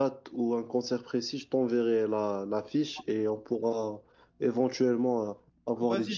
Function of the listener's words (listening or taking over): taking over